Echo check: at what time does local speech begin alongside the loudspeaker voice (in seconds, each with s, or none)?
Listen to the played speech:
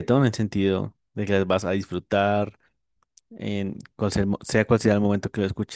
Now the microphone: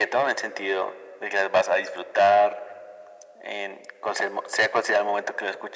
none